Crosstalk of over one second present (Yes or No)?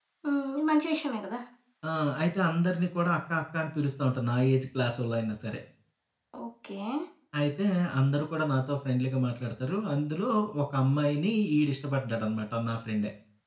No